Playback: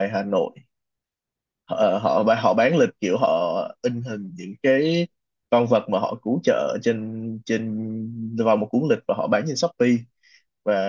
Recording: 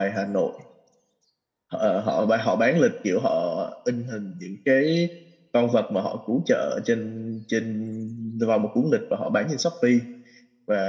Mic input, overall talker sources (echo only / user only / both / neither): echo only